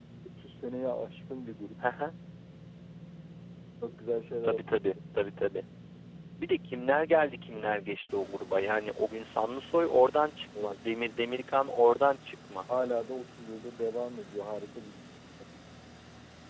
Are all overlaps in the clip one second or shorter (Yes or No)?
Yes